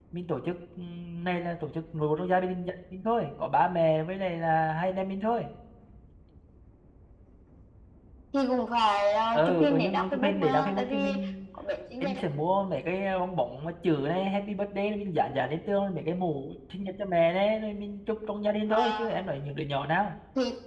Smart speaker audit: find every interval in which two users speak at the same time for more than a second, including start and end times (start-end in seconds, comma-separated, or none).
9.3-11.1